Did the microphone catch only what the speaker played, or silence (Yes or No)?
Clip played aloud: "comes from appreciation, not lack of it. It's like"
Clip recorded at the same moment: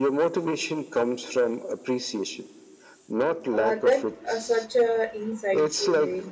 No